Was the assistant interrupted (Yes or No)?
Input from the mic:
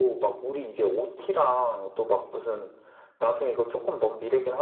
No